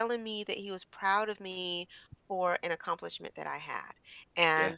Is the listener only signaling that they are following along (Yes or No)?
Yes